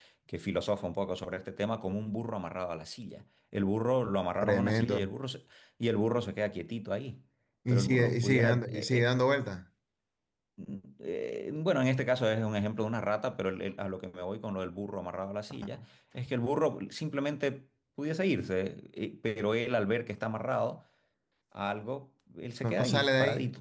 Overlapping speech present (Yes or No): Yes